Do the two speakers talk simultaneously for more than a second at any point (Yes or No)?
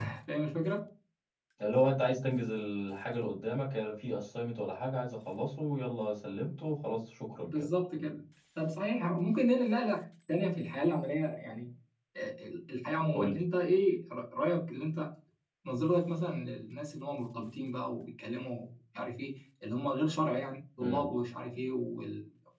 No